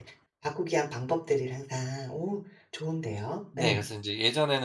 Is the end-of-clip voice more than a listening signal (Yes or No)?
Yes